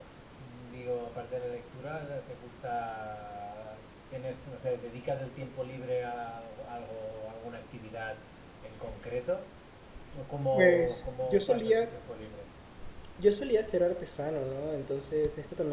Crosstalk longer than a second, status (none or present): present